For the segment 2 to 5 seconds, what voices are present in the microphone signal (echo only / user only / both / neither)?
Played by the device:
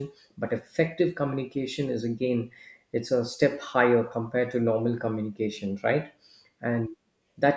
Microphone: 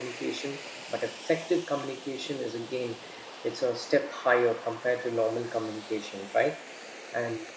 echo only